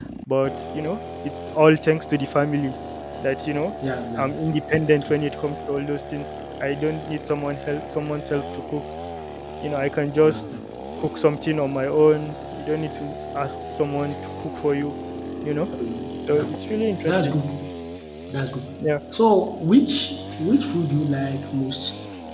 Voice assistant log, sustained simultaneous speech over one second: none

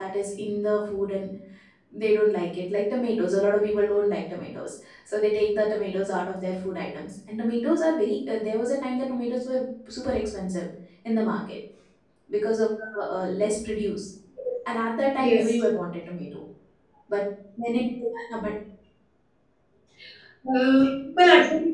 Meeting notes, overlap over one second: none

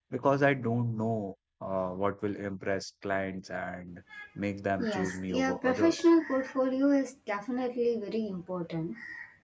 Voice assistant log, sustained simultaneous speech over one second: present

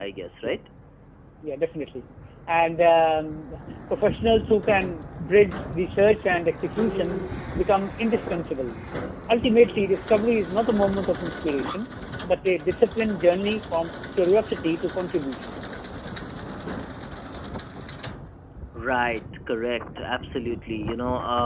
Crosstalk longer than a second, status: none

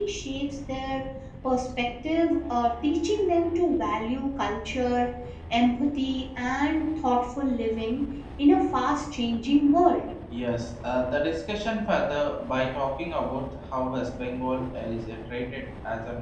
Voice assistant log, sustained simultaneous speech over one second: none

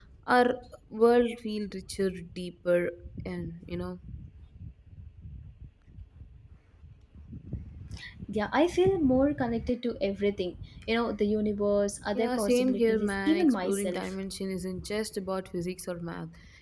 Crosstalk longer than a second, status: present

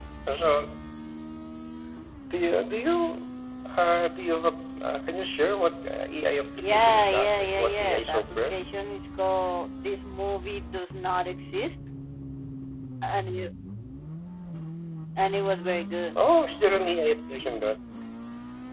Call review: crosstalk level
present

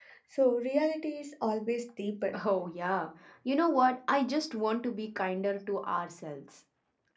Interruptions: none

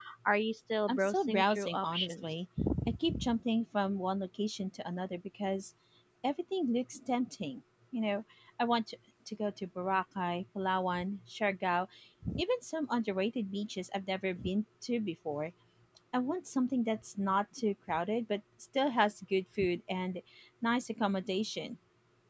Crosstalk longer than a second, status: present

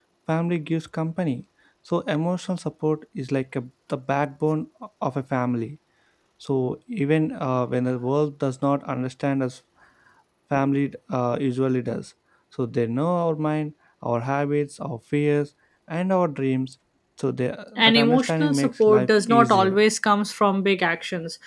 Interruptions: present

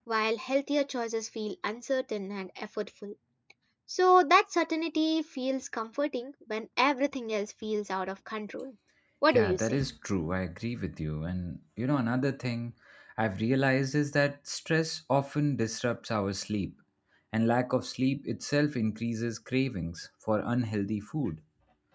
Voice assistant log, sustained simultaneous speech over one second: none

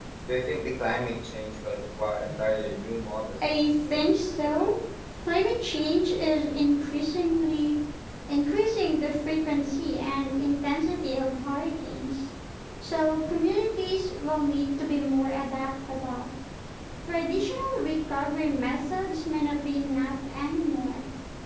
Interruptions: present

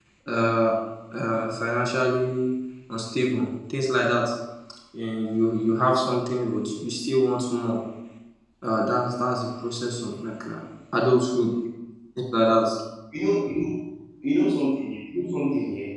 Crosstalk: none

